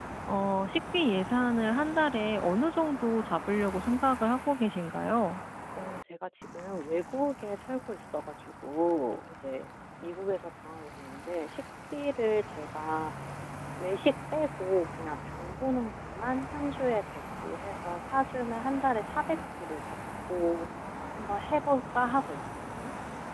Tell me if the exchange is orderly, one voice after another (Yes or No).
Yes